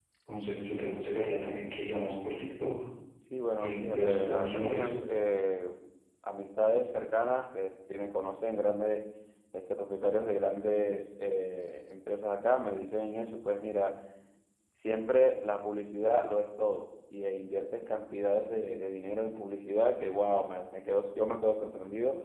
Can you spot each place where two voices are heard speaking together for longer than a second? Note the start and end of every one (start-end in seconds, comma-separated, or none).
3.6-4.9